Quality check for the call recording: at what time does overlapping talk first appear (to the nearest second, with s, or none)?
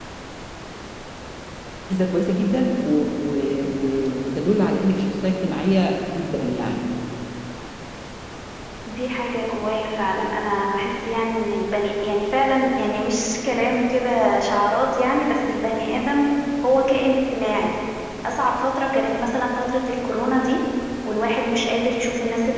none